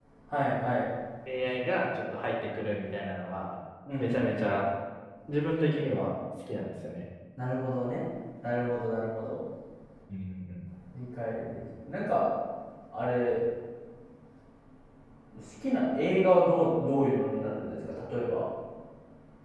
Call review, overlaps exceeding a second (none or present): none